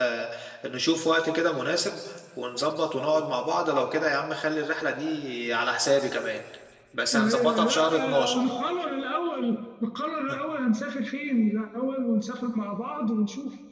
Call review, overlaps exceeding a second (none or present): present